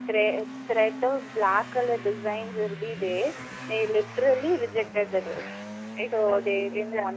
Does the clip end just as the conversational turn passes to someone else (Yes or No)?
Yes